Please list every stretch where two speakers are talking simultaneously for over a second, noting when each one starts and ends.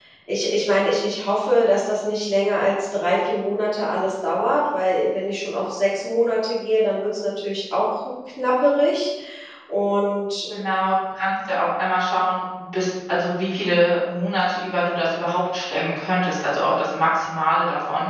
none

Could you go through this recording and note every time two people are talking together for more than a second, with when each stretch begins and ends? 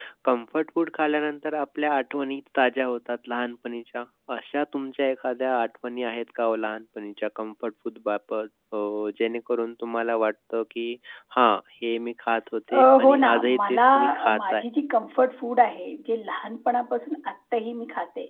12.7-14.6

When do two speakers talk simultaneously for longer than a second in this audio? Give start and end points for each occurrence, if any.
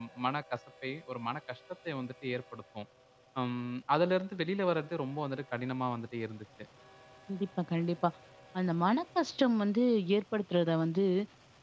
none

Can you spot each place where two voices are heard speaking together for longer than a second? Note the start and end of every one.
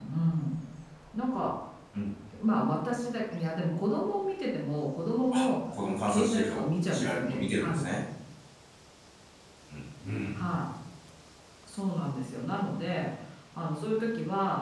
6.1-8.0

